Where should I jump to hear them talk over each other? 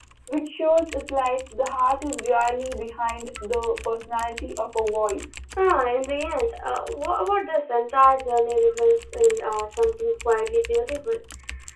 none

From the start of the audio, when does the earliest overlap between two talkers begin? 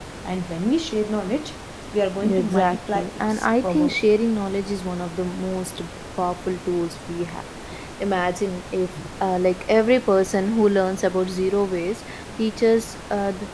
2 s

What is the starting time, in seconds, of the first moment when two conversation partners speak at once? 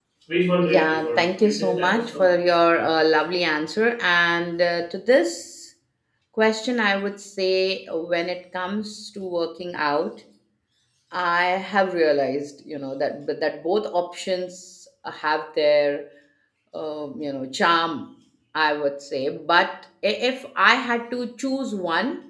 1 s

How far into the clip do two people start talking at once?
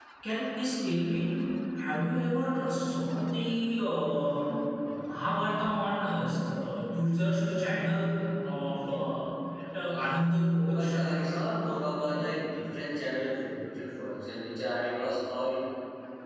10 s

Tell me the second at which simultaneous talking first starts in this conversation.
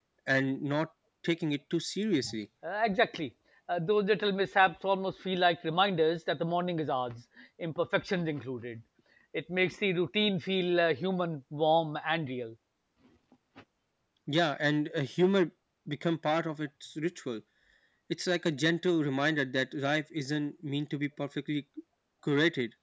none

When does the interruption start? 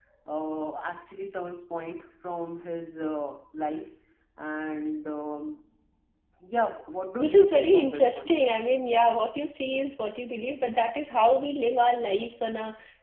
7 s

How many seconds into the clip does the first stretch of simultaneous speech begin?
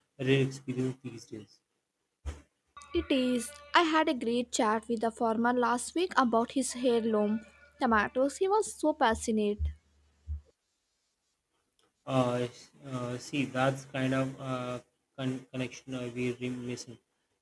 none

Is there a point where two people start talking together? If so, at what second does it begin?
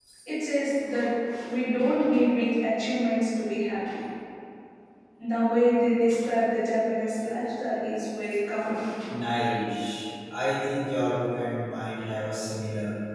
none

